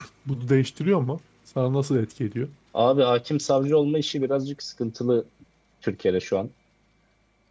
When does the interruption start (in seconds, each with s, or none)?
none